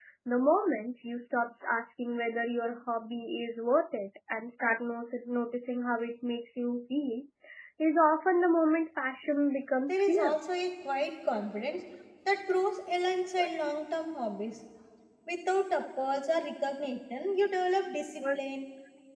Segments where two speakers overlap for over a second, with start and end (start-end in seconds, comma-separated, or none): none